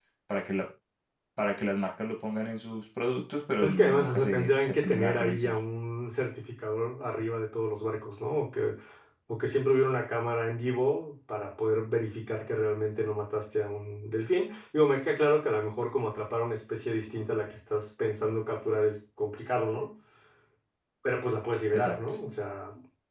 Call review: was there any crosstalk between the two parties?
Yes, from 3.6 s

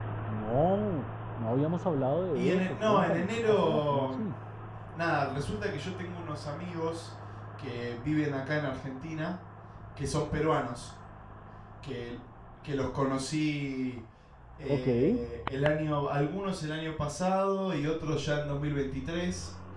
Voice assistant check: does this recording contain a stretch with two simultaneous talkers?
Yes, from 2.4 s

